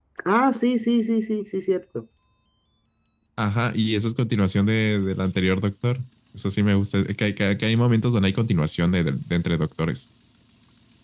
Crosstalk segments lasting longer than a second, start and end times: none

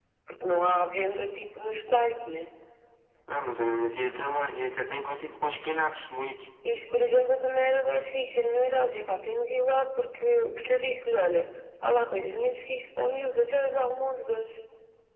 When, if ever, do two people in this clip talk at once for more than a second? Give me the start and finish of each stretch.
none

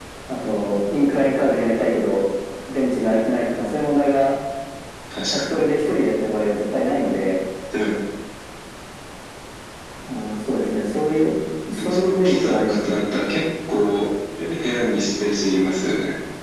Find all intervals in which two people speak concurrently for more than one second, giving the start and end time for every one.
11.8-13.0

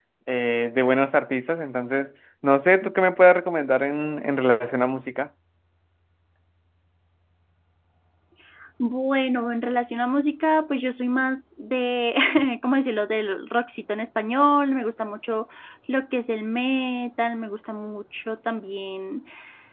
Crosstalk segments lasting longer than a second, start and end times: none

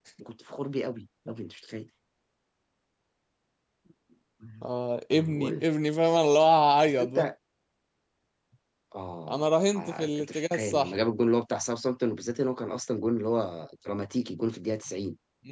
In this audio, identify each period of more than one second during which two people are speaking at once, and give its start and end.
9.3-10.9

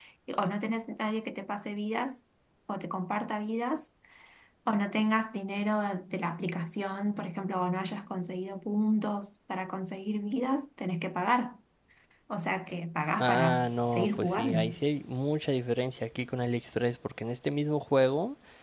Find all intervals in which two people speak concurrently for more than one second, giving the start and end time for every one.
13.2-14.6

